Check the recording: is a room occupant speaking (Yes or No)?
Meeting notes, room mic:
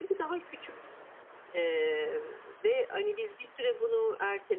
No